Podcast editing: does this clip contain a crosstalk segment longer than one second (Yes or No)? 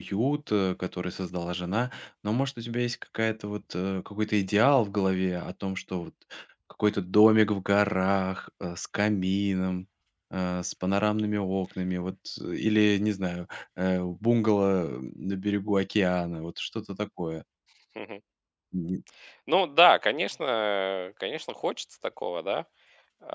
No